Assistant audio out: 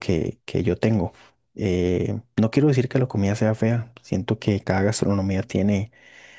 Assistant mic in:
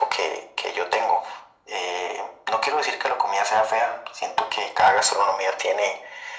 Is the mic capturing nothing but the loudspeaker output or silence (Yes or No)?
Yes